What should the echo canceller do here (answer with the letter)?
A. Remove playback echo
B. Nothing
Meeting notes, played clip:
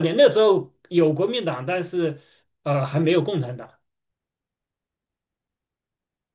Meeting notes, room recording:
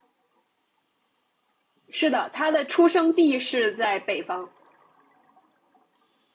B